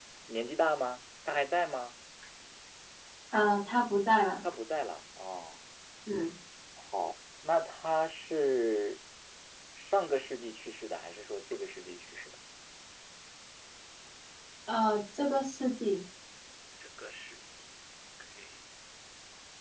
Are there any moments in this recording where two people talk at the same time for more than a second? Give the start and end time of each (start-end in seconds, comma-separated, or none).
none